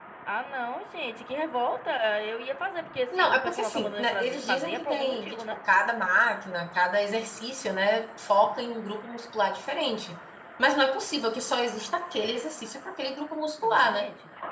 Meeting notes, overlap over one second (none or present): present